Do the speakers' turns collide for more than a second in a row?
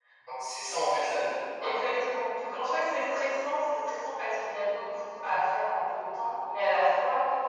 No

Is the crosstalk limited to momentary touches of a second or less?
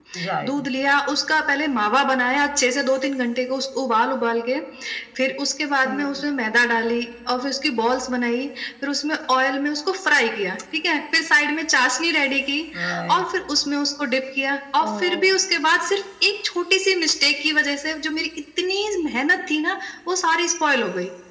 Yes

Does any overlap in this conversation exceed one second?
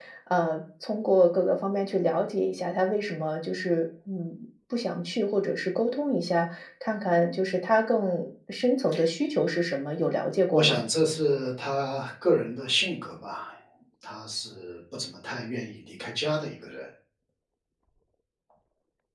No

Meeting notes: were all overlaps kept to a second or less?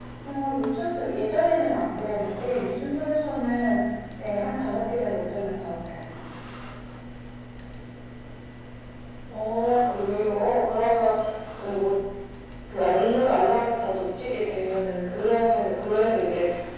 Yes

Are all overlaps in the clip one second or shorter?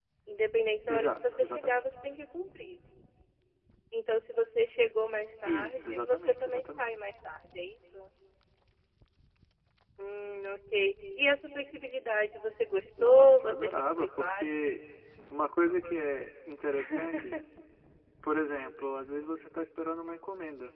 No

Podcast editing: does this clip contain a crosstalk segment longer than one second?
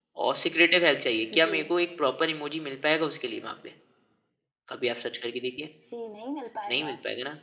No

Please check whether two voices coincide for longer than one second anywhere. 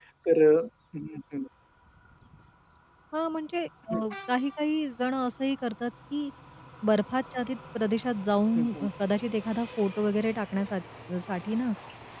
No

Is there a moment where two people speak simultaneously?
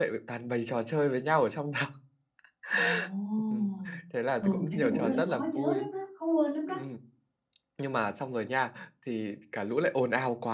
Yes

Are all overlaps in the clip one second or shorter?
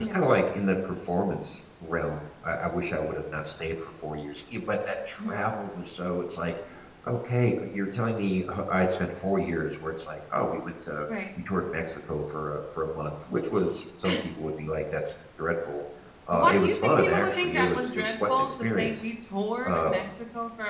No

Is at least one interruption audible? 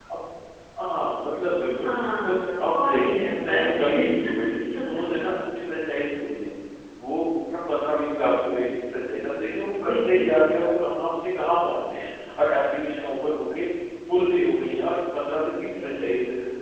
Yes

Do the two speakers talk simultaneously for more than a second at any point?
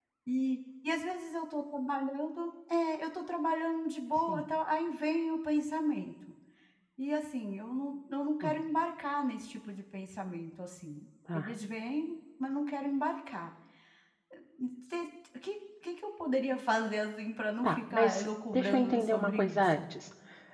Yes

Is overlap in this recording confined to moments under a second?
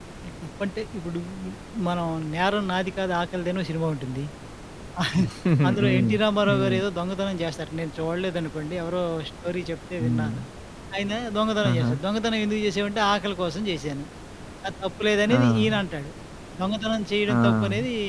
Yes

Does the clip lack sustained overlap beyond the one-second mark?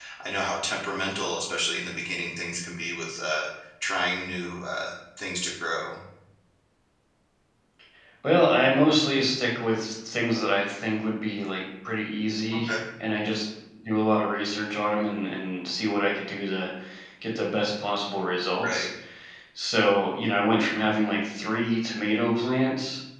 Yes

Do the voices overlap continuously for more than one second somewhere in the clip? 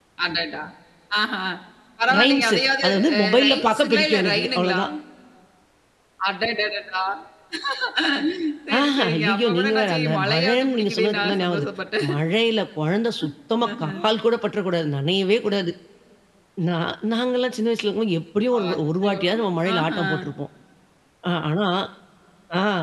Yes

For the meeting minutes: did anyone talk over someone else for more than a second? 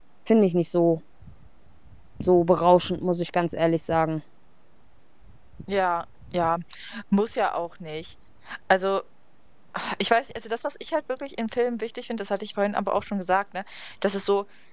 No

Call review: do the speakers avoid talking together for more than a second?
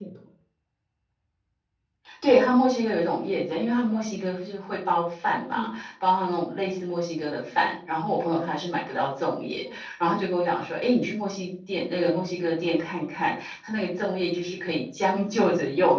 Yes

